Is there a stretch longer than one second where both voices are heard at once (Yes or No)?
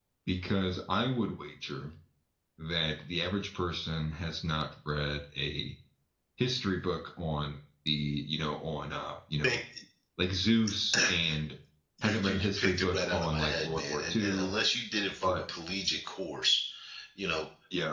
Yes